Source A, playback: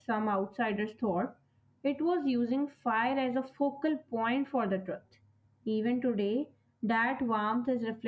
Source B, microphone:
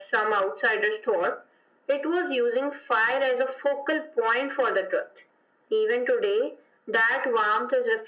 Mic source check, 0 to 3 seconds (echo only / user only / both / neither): echo only